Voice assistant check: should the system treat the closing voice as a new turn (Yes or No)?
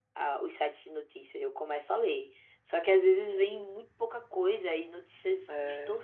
No